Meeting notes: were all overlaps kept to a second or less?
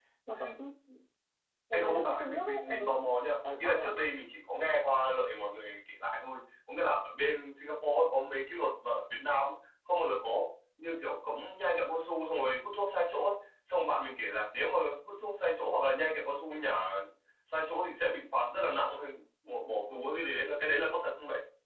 No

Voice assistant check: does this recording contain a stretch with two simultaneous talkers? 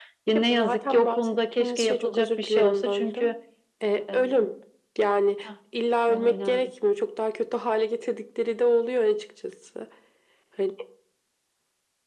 Yes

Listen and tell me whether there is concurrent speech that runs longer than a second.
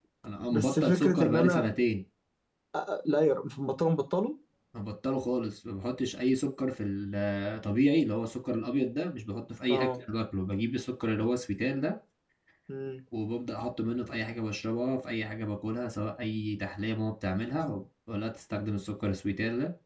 Yes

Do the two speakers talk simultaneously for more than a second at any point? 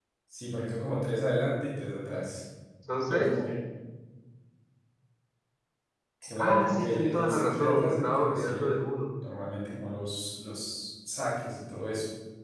Yes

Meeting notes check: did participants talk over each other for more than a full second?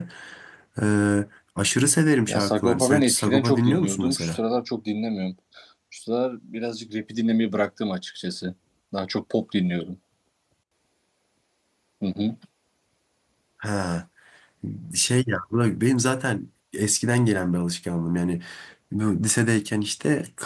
Yes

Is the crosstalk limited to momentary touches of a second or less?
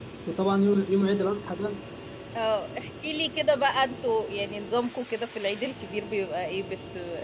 Yes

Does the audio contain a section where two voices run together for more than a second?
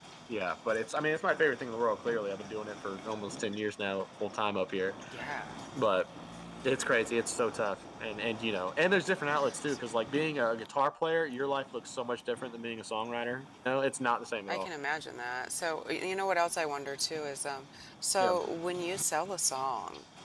No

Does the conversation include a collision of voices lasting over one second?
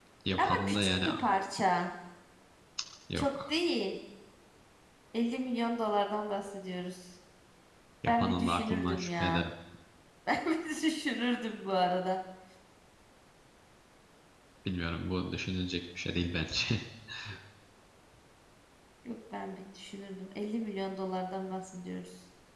Yes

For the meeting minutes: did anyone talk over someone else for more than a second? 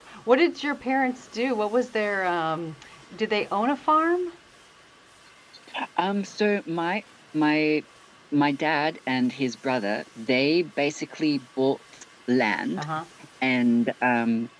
No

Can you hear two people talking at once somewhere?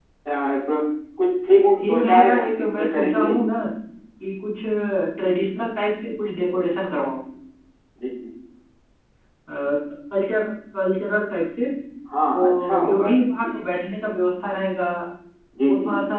Yes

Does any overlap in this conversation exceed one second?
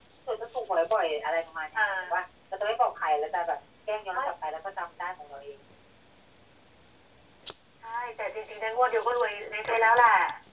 No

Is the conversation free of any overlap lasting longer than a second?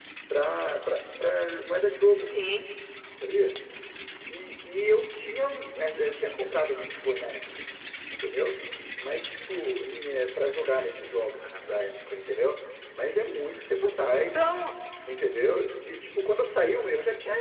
Yes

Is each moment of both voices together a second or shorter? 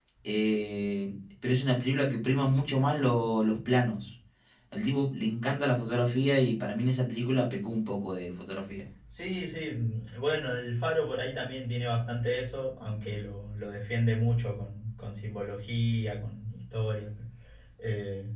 Yes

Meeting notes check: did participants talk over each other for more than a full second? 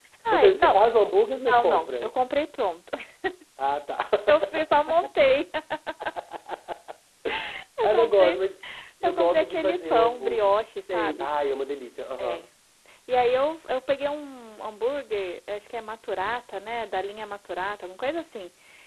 Yes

